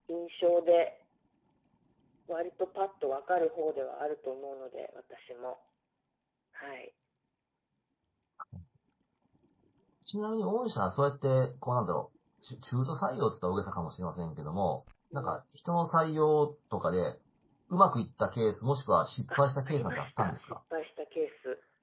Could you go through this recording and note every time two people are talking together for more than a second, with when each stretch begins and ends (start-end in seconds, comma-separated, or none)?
19.3-20.6